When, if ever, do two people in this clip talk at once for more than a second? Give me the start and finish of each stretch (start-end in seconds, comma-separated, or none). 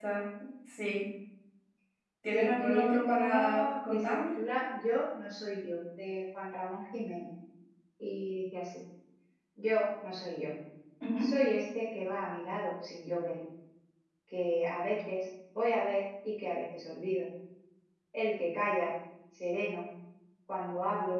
2.3-4.4